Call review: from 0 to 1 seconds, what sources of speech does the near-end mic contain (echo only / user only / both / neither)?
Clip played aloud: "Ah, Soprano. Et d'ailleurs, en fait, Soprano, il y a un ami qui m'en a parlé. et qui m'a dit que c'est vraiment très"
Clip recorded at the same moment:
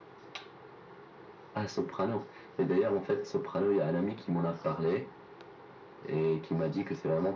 neither